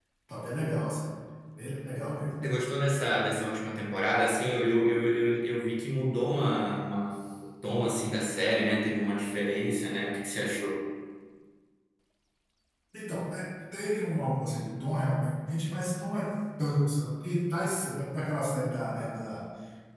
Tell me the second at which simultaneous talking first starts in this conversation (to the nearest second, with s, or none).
none